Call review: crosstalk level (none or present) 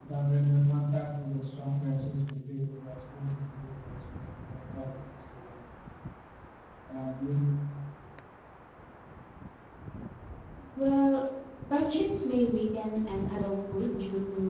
none